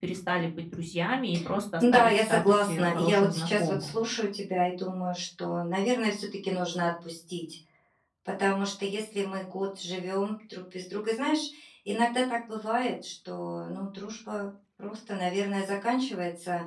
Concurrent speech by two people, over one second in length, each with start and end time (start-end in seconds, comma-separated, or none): 1.8-3.9